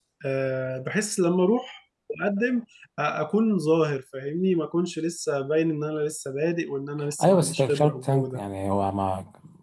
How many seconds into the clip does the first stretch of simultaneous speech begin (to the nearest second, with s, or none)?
7 s